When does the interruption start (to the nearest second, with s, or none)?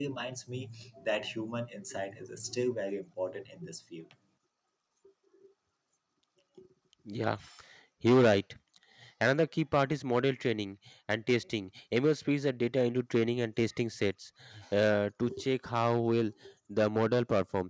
none